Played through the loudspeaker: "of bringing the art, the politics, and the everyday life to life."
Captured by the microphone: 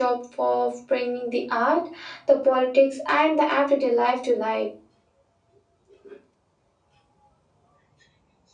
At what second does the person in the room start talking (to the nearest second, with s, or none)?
none